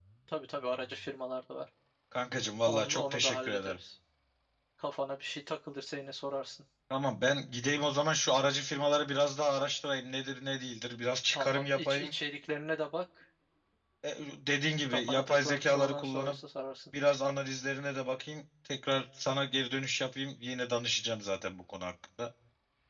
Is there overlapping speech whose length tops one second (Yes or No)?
Yes